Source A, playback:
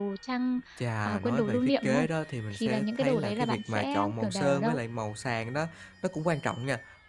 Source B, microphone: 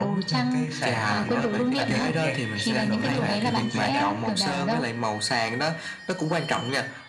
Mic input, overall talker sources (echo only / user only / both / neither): both